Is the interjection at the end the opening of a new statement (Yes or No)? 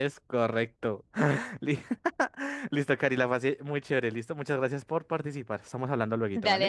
Yes